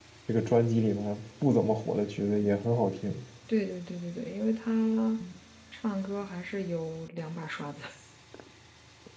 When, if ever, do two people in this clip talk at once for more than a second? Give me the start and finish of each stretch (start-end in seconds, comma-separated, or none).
none